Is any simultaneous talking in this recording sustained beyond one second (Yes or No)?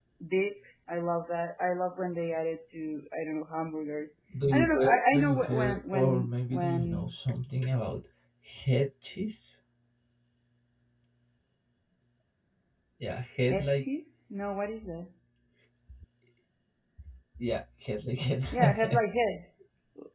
Yes